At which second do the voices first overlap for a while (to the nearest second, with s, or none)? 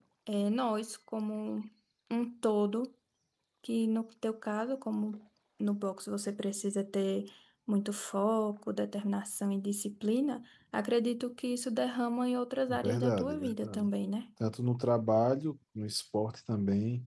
13 s